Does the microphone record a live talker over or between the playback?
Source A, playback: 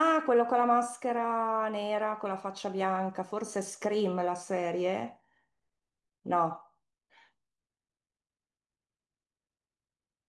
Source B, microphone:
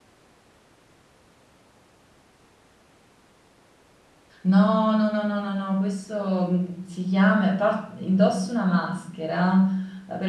Yes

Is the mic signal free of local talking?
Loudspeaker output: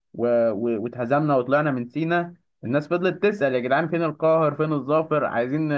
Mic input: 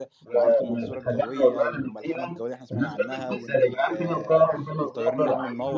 No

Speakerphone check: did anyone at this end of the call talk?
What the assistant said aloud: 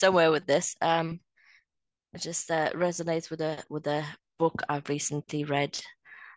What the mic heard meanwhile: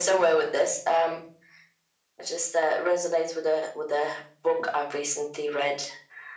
No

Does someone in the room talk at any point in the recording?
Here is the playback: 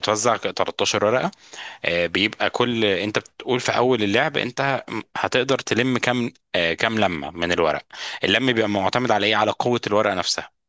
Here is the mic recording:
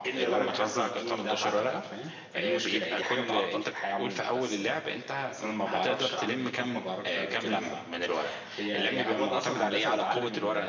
Yes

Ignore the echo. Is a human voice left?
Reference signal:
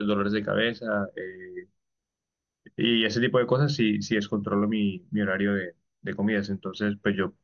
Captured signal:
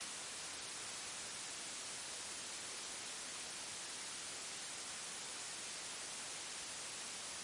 No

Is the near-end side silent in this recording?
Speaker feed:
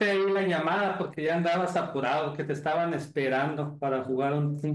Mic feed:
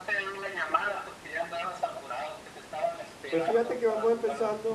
No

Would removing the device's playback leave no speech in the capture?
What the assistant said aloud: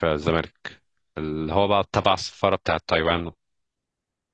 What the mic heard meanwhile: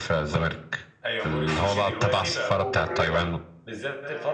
No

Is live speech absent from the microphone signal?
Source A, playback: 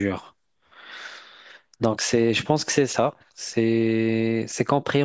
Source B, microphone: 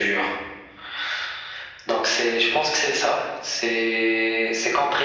Yes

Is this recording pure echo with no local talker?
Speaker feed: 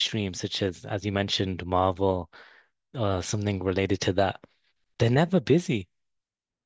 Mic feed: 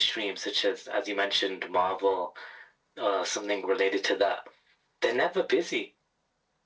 Yes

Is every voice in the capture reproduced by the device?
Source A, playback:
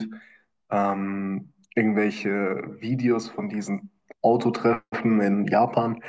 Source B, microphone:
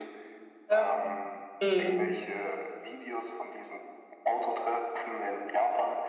No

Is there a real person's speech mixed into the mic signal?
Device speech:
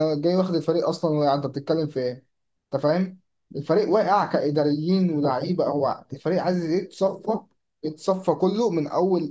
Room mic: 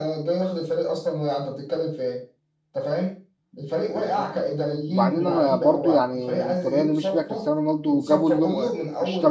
Yes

